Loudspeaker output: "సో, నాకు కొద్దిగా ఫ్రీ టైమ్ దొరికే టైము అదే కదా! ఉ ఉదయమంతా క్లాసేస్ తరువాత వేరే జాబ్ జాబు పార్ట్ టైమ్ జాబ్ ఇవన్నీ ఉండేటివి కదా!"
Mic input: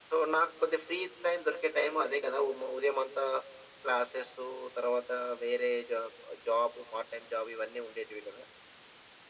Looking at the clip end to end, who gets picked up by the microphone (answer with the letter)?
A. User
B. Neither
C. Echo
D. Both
C